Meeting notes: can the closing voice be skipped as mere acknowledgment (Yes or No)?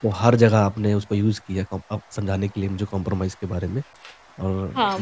No